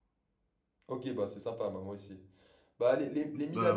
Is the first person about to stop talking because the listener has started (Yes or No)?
No